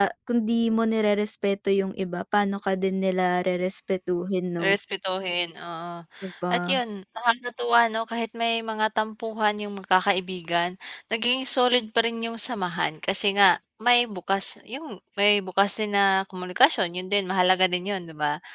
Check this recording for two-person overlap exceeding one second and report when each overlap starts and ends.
none

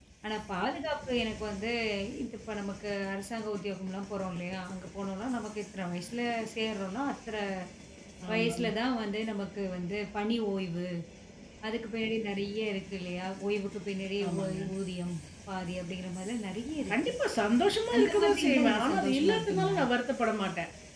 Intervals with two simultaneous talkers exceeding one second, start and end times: 18.0-19.8

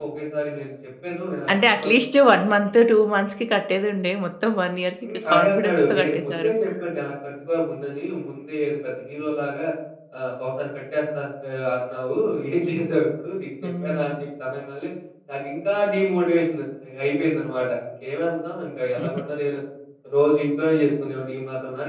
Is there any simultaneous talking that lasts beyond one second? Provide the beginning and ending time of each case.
5.0-6.5

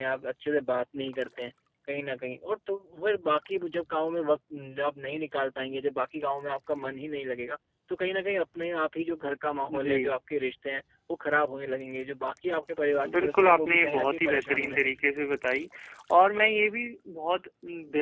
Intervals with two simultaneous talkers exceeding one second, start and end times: 13.1-14.9

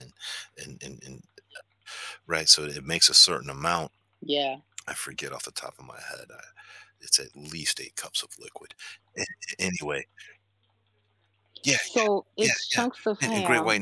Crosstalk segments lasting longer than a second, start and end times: none

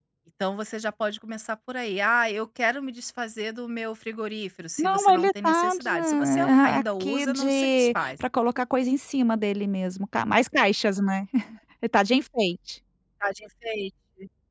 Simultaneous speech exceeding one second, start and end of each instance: 4.8-8.1

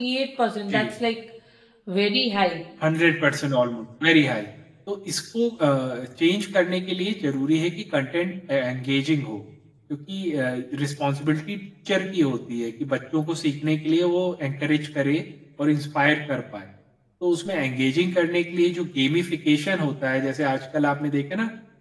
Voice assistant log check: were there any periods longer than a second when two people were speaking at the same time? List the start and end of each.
none

